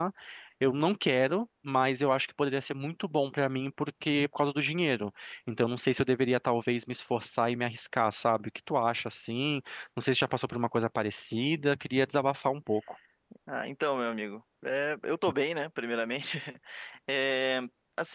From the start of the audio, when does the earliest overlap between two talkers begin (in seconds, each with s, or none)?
none